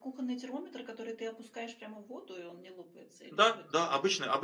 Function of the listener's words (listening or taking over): taking over